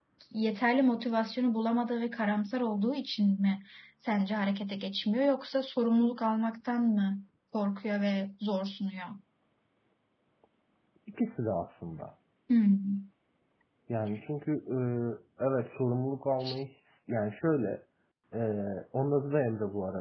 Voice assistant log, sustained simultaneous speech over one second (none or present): none